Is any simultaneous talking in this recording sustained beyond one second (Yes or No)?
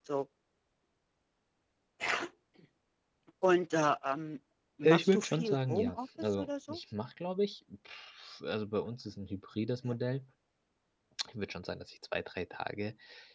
Yes